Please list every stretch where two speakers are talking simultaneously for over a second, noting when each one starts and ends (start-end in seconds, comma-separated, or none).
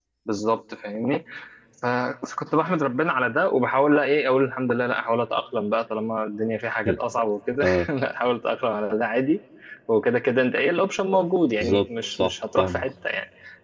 11.4-12.8